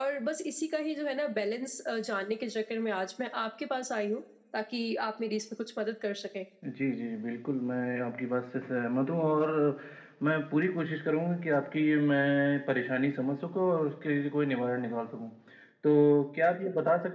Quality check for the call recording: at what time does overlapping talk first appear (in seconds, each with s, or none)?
none